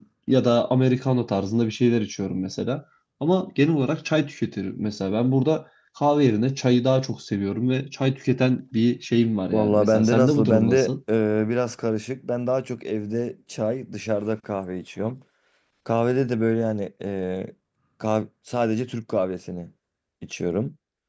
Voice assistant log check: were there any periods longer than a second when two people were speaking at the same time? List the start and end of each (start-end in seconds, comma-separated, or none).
9.5-10.9